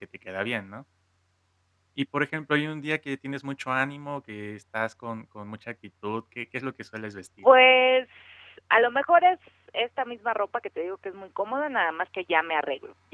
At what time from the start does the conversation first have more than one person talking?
none

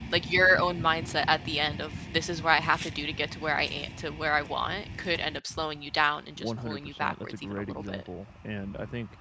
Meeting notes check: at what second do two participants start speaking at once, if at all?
6.4 s

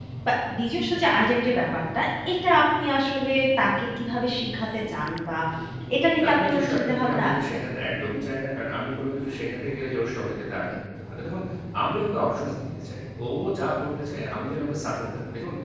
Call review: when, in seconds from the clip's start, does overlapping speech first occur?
6.2 s

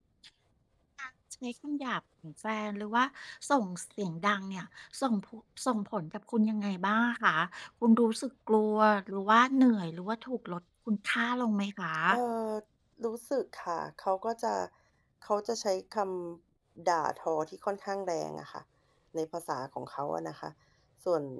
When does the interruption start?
none

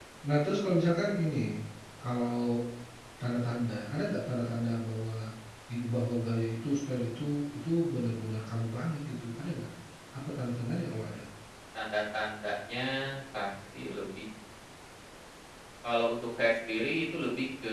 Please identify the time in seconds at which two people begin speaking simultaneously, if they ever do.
none

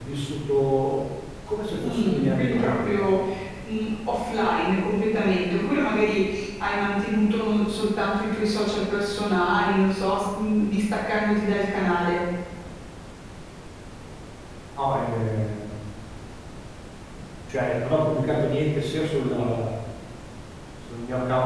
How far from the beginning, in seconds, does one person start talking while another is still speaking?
1.8 s

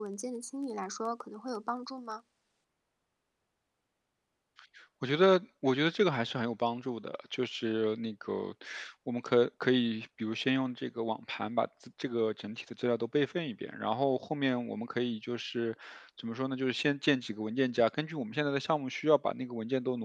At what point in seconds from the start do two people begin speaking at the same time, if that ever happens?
none

